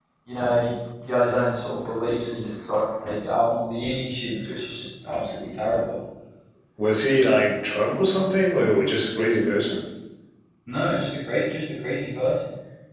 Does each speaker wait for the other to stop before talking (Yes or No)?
Yes